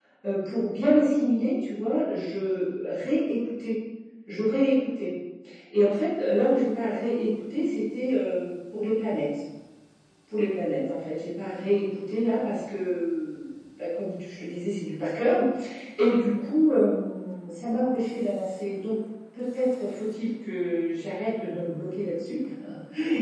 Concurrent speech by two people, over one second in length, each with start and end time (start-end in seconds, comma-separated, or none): none